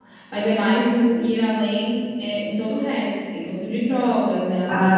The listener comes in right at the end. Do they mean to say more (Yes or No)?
Yes